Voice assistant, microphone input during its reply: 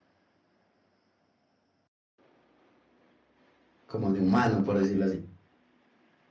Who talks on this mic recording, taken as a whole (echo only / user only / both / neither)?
user only